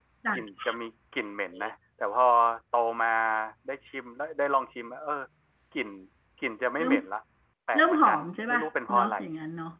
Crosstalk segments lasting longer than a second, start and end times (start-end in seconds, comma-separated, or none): 7.8-9.2